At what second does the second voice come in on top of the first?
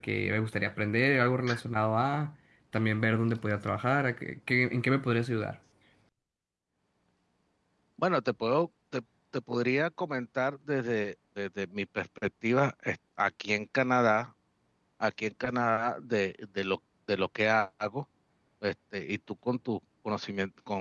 none

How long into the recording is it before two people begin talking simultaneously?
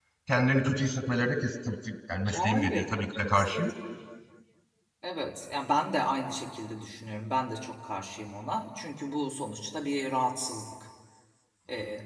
2.3 s

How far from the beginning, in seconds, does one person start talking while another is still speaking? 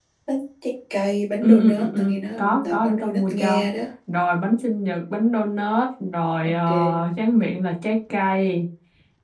1.4 s

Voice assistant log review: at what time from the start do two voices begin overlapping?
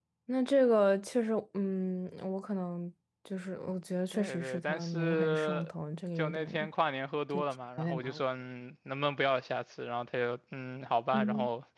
4.1 s

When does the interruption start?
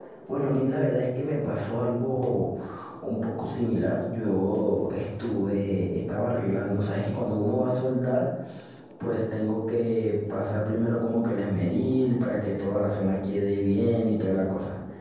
none

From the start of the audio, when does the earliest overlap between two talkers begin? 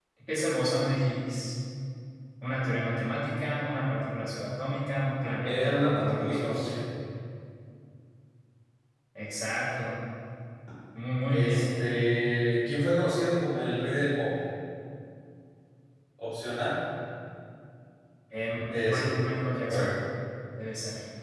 5.4 s

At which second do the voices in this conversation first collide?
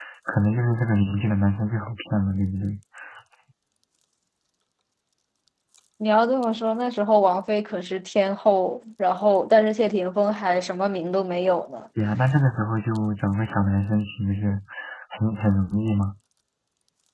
none

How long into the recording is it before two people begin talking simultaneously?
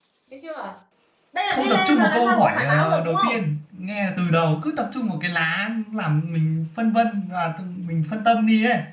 1.5 s

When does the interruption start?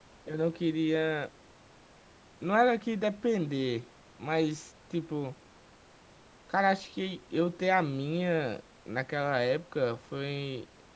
none

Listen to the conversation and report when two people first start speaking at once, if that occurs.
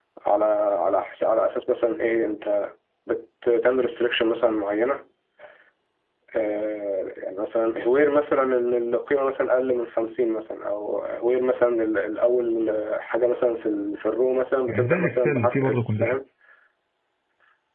14.7 s

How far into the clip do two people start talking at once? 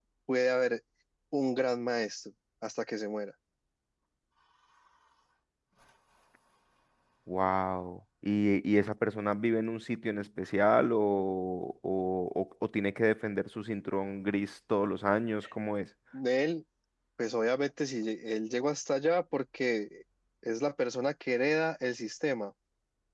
none

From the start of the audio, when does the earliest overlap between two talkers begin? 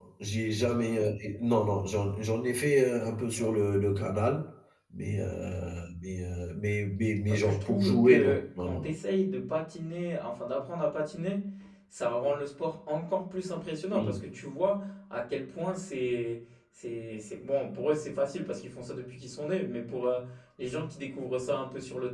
7.3 s

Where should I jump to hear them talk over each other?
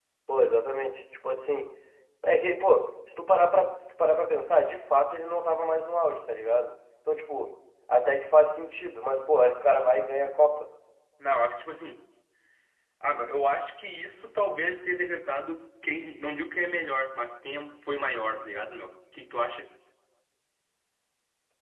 none

